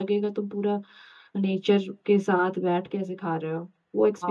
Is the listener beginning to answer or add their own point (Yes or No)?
Yes